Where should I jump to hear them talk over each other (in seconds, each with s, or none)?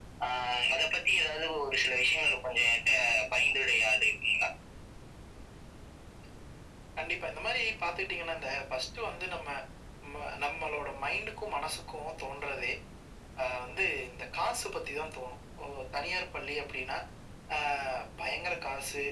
none